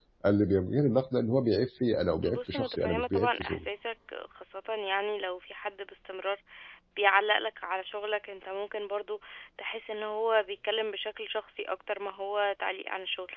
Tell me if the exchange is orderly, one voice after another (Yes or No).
No